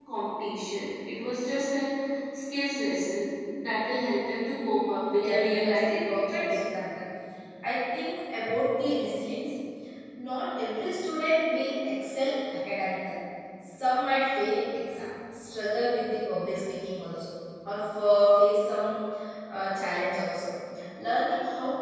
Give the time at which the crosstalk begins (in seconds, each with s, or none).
5.2 s